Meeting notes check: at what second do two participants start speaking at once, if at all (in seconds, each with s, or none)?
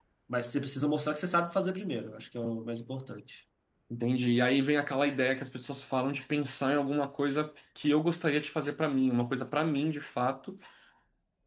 none